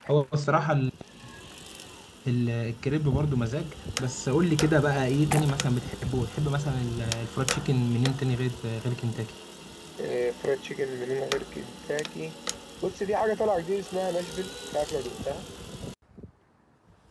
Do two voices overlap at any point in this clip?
No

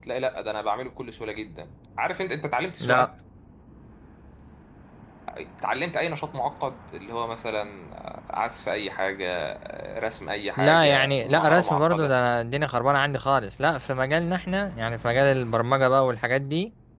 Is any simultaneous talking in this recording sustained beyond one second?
Yes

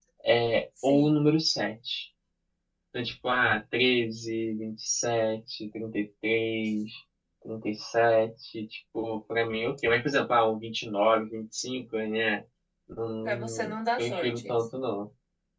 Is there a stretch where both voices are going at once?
Yes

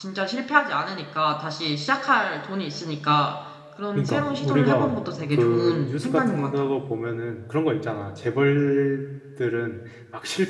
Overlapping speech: Yes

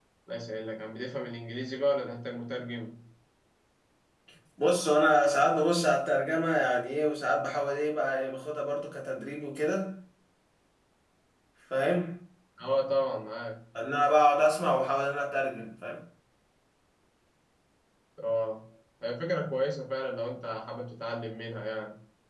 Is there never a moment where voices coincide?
Yes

